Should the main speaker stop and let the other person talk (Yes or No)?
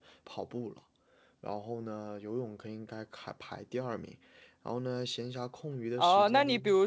Yes